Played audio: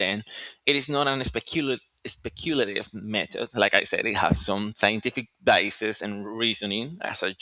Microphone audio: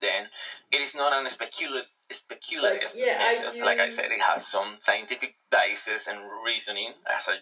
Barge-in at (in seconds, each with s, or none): 2.6 s